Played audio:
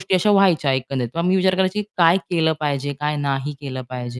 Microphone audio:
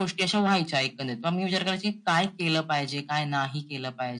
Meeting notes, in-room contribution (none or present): none